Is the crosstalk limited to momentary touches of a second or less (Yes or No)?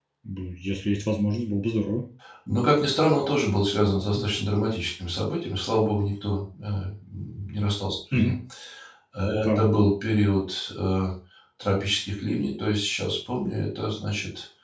Yes